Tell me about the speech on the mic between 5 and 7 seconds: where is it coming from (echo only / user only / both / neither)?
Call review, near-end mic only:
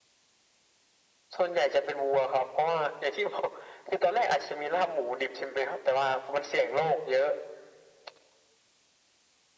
echo only